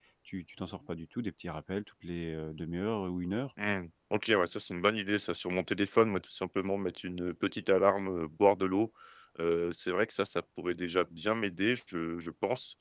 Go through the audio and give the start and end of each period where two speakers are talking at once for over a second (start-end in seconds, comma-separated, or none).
none